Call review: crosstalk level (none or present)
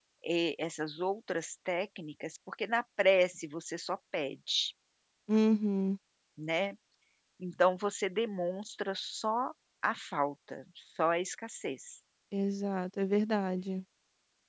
none